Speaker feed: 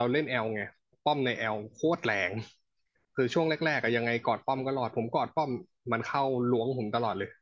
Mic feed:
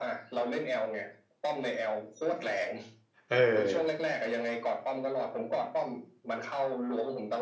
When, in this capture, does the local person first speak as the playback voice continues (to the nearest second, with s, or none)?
3 s